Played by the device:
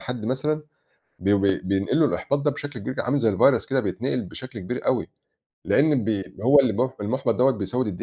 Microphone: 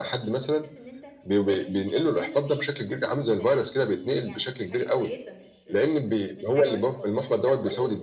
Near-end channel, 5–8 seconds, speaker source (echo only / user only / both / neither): both